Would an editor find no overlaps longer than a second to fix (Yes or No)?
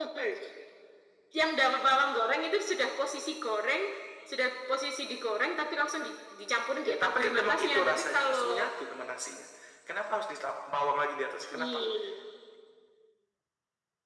No